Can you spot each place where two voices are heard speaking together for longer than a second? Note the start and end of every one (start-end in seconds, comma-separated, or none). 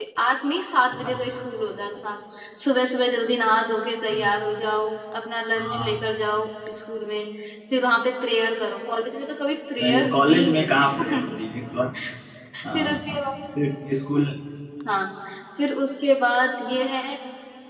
9.8-11.4